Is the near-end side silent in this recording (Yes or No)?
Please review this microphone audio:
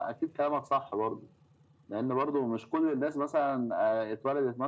Yes